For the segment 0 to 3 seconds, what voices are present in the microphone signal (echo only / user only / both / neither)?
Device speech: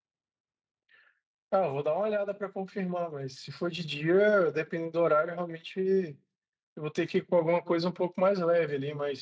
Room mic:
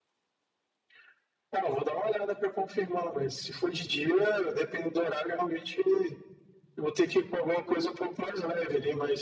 echo only